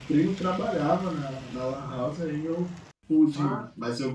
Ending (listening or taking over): listening